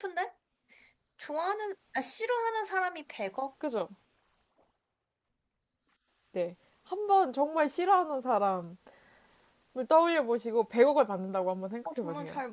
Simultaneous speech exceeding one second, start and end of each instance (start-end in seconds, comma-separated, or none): none